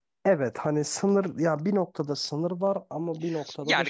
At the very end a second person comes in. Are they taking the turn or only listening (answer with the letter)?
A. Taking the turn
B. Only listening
A